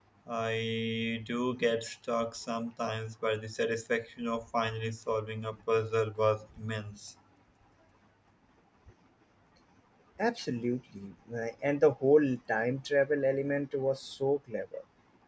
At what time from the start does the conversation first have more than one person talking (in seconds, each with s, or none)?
none